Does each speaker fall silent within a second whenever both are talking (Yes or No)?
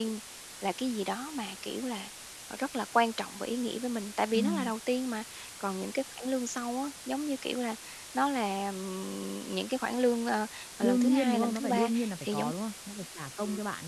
No